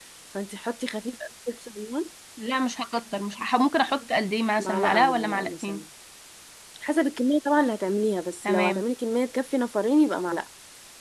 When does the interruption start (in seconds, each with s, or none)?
4.6 s